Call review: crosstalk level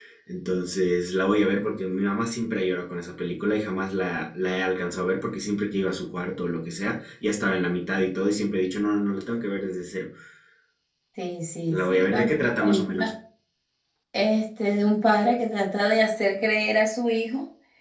present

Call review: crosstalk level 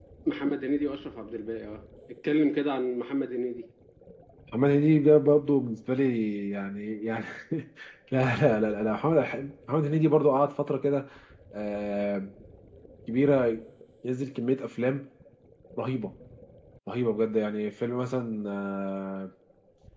none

